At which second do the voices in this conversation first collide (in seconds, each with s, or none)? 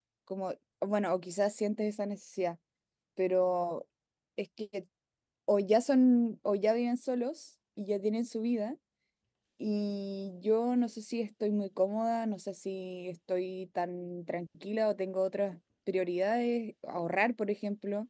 none